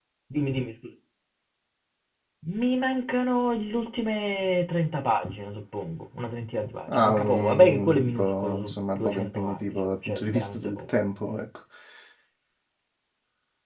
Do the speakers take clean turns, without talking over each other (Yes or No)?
No